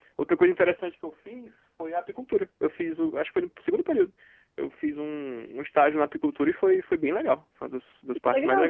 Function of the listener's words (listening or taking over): taking over